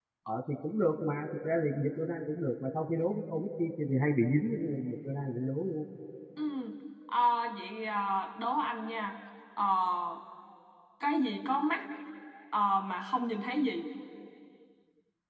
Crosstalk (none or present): none